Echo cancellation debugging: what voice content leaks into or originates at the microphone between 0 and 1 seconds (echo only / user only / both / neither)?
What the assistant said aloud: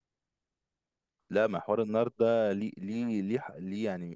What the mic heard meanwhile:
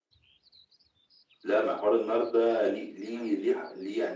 neither